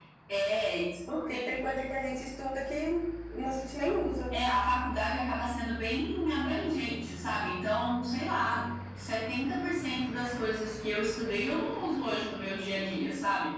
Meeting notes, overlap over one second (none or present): none